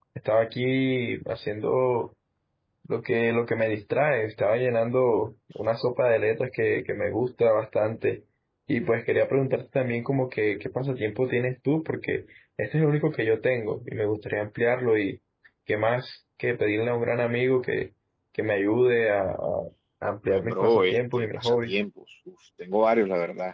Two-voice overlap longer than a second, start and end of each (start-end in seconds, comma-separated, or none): 20.3-21.8